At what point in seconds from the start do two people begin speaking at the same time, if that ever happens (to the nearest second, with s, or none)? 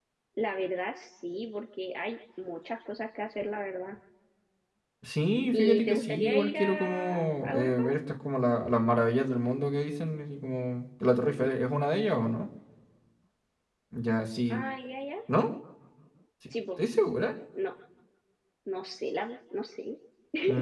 6 s